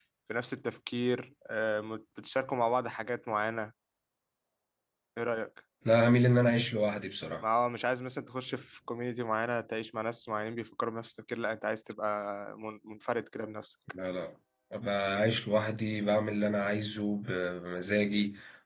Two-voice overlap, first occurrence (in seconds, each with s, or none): none